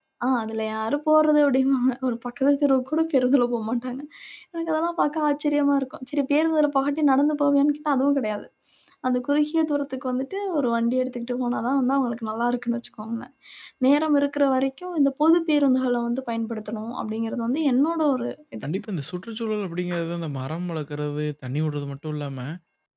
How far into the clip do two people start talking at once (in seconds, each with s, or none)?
none